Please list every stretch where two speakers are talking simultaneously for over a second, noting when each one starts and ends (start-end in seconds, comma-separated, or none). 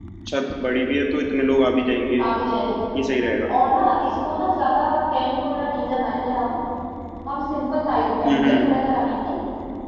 none